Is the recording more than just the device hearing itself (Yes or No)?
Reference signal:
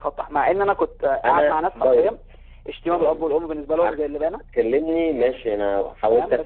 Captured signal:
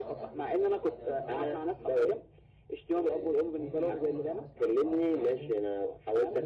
Yes